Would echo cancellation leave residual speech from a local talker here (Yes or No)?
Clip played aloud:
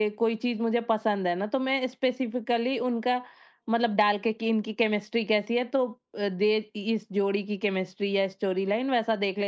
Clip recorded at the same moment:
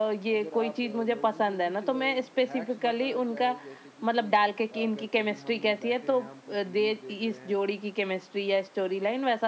Yes